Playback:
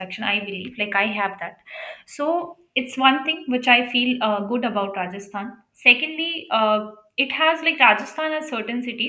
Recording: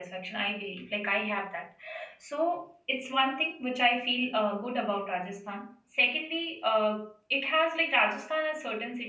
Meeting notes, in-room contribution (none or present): none